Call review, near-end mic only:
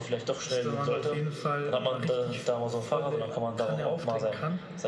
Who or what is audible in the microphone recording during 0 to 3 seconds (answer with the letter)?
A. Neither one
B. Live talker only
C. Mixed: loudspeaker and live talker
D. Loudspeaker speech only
D